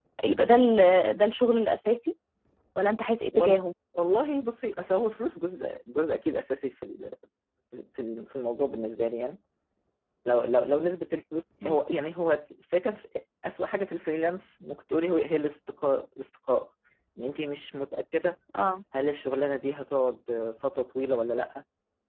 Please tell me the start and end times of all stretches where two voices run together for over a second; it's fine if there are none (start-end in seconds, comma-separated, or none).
none